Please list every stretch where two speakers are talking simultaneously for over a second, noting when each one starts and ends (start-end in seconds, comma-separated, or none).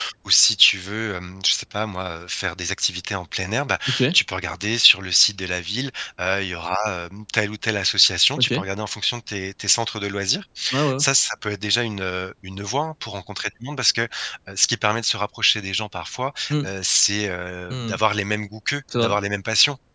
none